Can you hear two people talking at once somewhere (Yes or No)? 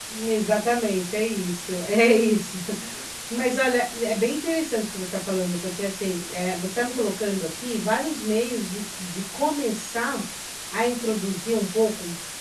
No